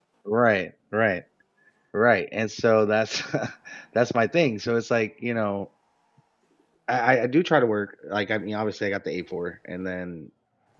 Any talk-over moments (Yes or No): No